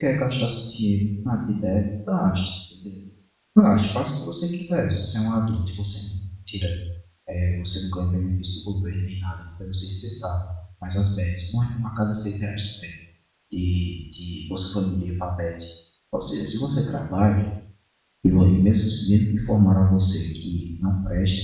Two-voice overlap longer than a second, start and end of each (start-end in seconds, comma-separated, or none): none